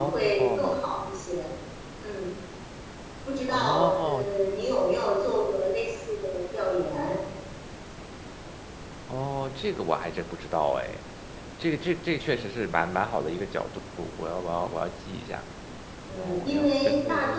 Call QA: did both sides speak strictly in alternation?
No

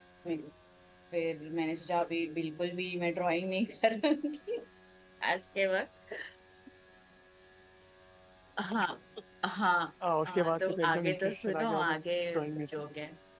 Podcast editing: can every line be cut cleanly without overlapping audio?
No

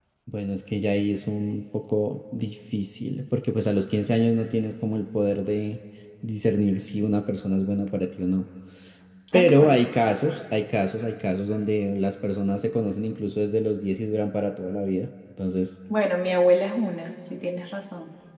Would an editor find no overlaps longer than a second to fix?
Yes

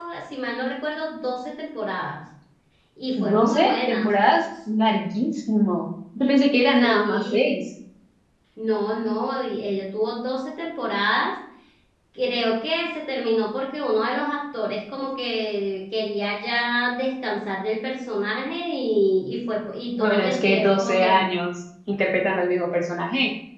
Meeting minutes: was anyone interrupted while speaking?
Yes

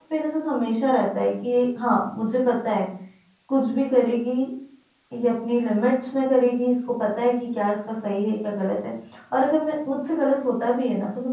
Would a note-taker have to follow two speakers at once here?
No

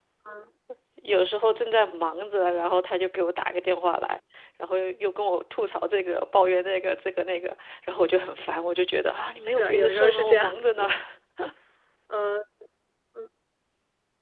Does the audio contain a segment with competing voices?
Yes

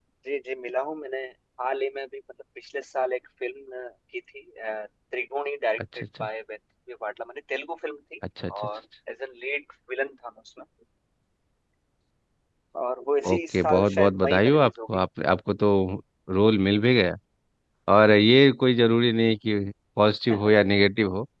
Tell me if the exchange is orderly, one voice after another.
No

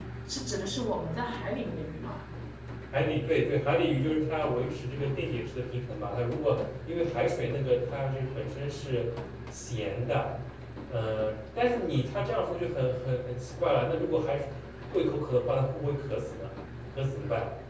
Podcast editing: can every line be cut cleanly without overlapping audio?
Yes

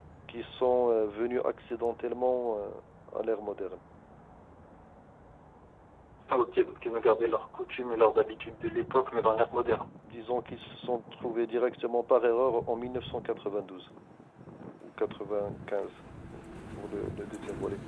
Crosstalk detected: No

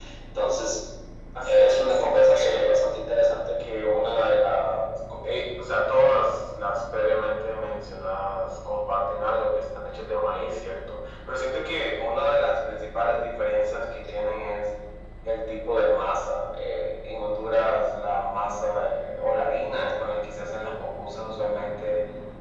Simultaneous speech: Yes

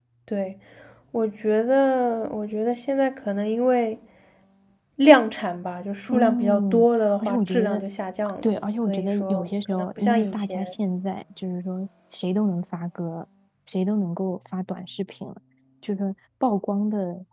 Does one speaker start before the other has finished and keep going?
Yes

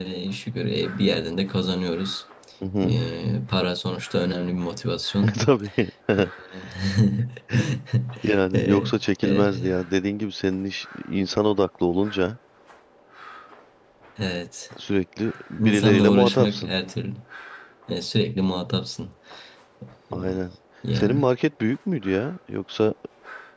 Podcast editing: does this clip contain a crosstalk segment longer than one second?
Yes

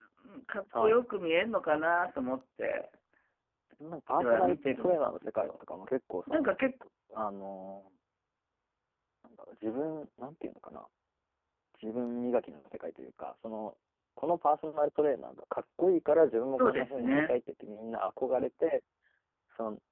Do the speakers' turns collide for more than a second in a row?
Yes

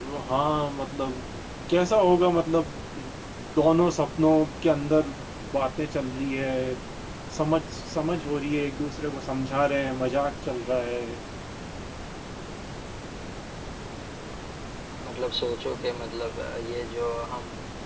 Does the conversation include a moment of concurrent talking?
No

